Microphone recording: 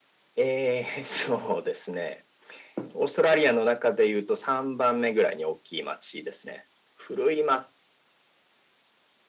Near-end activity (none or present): none